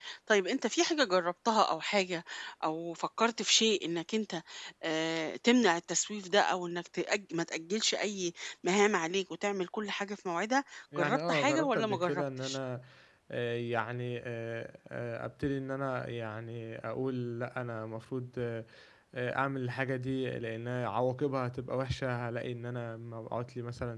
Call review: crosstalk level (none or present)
present